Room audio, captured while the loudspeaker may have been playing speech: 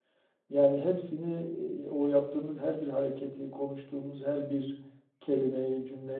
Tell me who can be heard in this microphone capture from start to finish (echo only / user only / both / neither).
user only